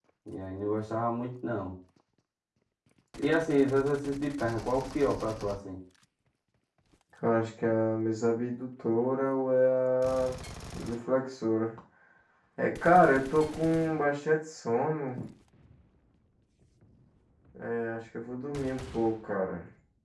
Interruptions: none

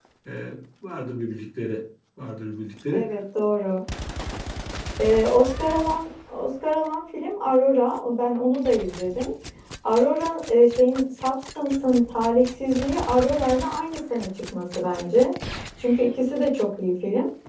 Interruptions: none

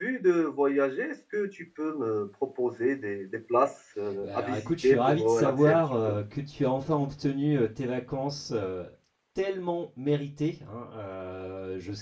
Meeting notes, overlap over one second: present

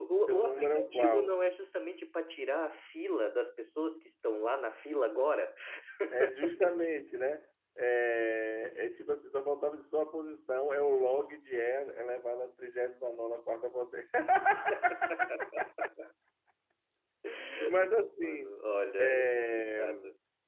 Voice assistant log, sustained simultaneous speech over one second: present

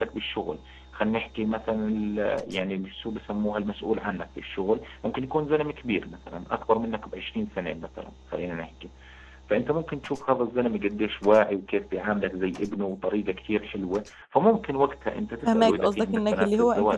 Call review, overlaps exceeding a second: present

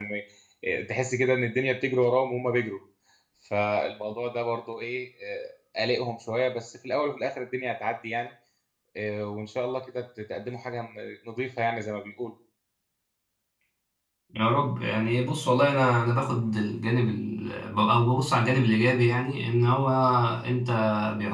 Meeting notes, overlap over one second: none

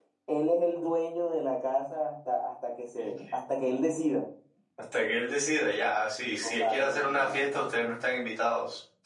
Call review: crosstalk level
present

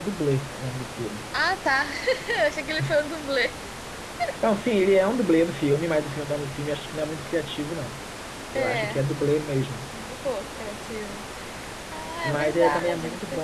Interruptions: present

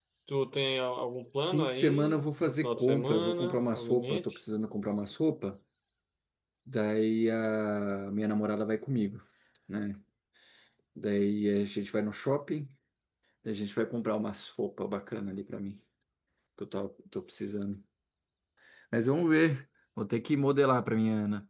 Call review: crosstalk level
present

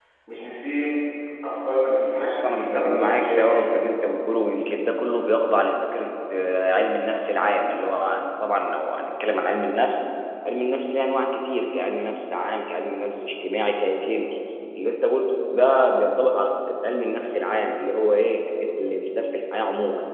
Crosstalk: present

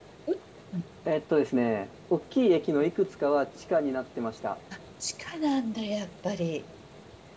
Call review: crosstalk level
none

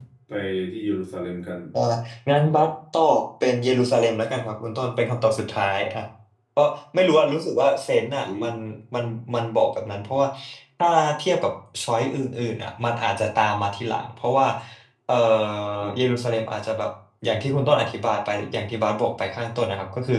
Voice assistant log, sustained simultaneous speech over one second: none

